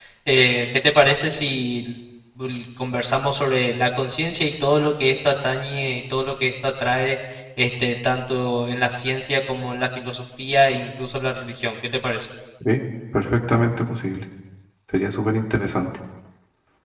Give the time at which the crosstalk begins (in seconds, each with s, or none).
none